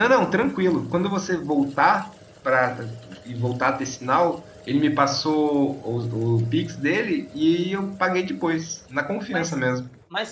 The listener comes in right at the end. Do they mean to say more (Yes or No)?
Yes